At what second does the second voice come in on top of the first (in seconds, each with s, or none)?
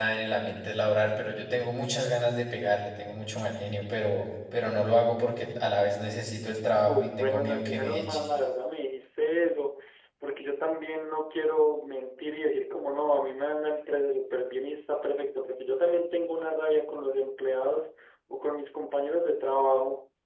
6.9 s